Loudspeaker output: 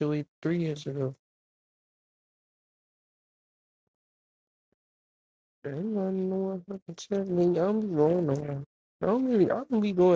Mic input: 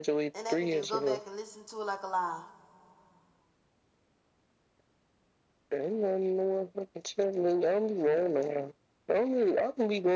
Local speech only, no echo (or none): and they could just go back and listen to it like a live.